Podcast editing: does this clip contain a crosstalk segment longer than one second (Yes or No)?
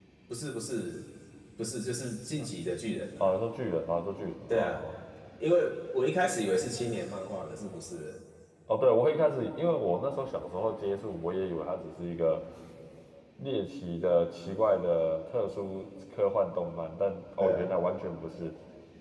No